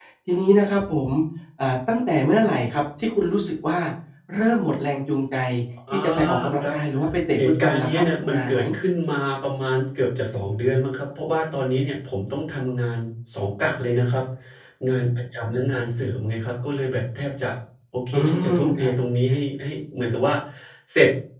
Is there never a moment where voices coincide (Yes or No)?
No